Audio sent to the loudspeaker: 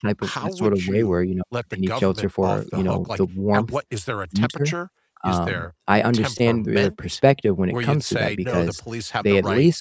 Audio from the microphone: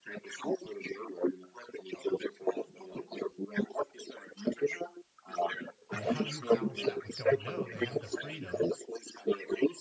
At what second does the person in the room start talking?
6 s

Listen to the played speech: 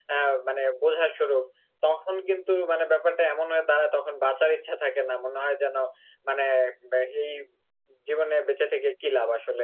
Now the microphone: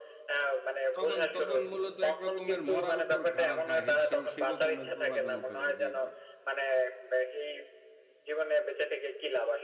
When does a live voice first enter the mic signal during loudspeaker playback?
1 s

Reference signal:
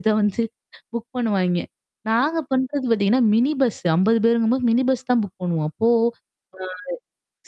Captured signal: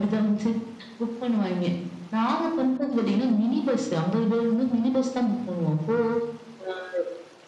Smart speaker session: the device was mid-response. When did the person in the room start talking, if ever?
none

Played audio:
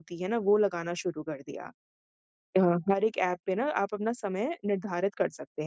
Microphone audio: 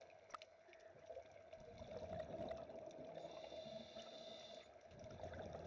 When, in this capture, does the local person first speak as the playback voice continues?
none

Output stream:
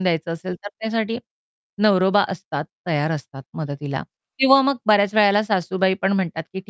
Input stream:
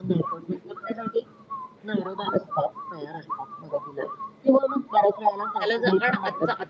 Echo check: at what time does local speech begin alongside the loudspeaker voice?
6 s

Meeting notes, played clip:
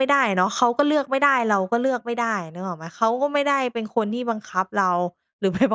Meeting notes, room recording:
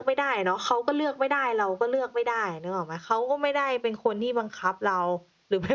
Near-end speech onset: none

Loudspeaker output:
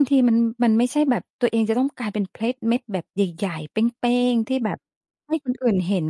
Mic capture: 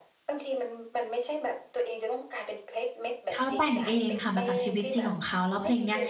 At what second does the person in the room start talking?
3 s

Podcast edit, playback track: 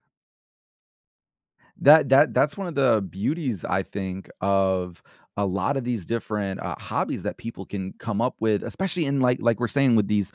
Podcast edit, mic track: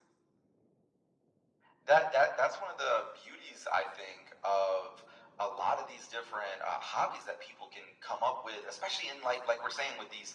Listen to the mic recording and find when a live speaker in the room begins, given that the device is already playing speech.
none

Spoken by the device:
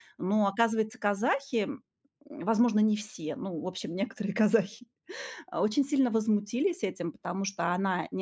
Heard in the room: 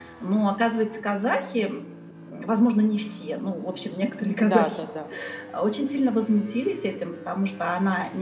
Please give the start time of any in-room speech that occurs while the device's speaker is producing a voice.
4 s

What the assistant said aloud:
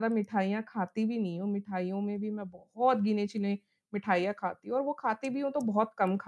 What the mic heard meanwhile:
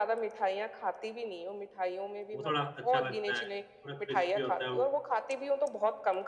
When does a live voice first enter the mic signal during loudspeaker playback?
2 s

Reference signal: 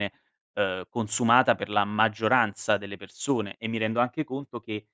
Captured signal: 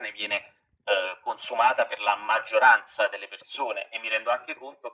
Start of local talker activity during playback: none

